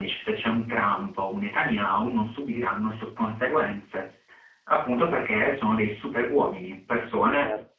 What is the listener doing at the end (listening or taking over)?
listening